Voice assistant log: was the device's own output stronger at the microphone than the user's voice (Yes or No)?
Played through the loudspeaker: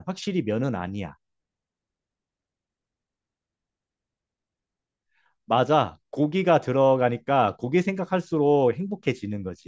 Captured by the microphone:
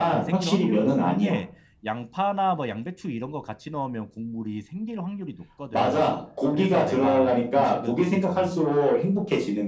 Yes